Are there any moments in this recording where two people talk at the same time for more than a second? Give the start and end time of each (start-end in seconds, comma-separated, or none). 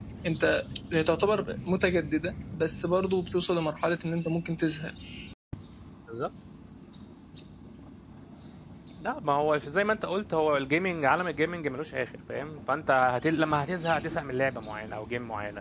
none